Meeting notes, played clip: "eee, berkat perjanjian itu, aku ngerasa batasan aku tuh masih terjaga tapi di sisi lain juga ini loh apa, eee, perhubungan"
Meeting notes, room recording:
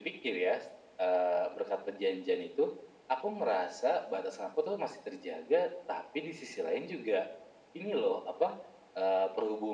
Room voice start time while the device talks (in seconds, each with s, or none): none